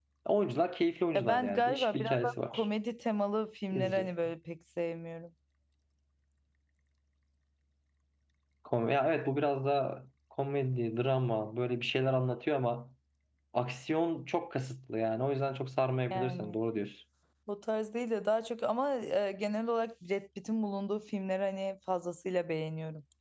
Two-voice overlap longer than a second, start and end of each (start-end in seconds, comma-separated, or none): 1.1-2.7